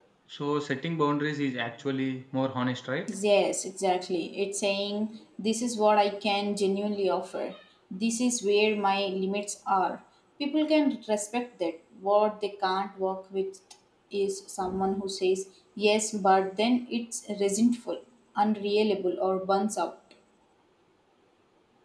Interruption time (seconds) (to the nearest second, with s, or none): none